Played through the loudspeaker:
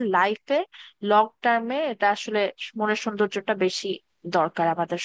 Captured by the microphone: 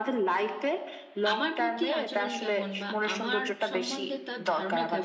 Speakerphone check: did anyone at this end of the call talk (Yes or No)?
Yes